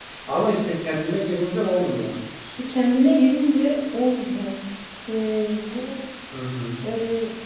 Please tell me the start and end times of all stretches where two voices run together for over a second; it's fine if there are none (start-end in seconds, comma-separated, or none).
none